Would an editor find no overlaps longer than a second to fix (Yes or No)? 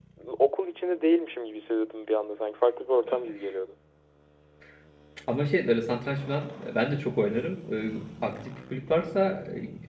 Yes